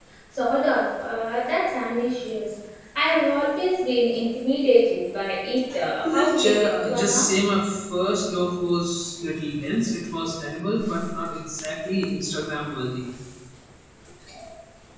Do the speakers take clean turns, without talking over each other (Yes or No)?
No